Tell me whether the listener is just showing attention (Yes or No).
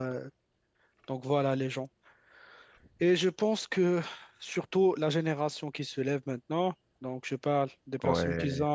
Yes